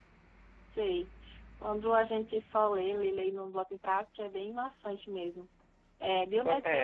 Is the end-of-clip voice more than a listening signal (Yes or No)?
No